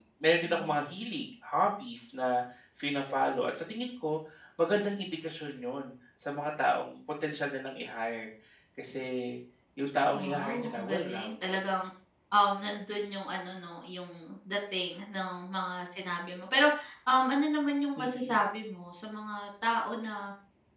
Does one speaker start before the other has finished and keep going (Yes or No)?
Yes